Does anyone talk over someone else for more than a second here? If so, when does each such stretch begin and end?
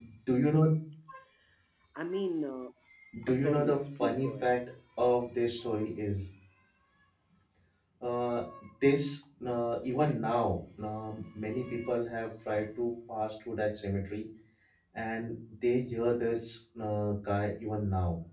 3.3-4.5

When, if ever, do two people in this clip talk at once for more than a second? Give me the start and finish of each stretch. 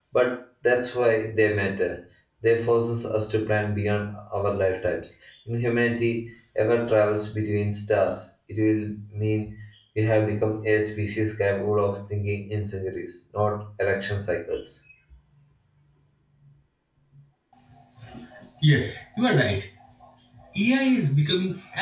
none

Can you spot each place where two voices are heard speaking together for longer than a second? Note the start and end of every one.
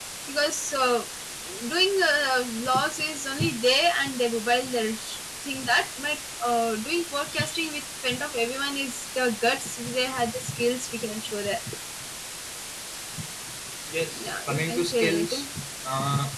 14.1-15.5

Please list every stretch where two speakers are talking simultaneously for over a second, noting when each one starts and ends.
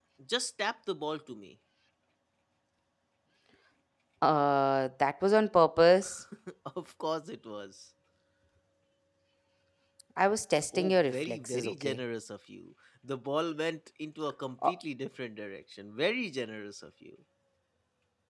10.7-12.0

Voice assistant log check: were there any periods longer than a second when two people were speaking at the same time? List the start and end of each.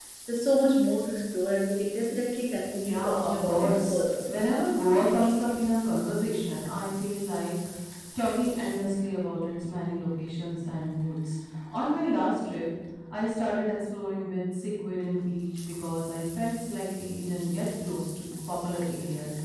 2.8-4.0

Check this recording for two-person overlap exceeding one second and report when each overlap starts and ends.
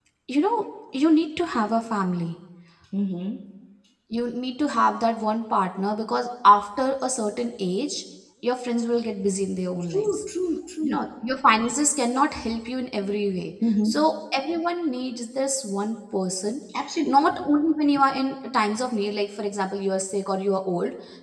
none

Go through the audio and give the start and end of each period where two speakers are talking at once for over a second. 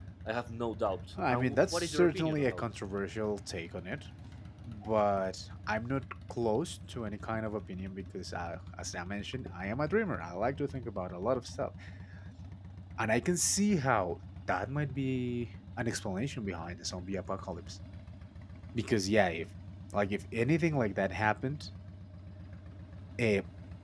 1.3-2.6

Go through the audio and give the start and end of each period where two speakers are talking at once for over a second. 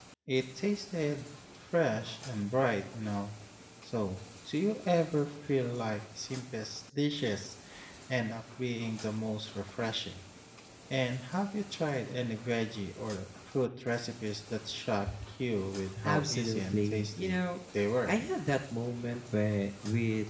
16.0-17.4

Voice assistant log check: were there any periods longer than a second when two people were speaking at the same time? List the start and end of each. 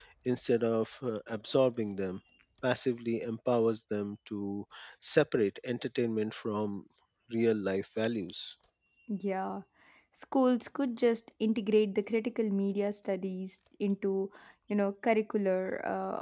none

